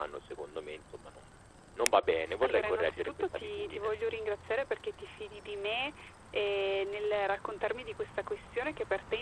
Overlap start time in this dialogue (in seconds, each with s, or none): 2.4 s